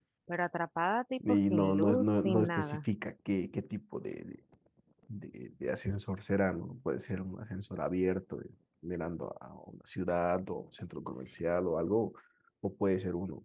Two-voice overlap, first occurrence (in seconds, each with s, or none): 1.3 s